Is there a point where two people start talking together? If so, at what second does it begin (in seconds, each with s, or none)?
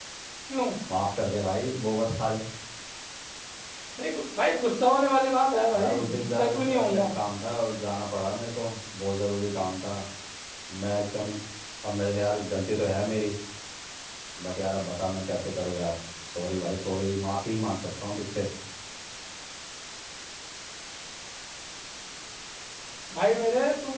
5.7 s